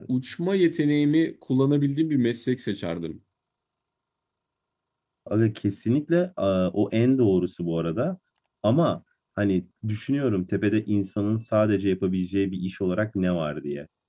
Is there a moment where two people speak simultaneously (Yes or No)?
No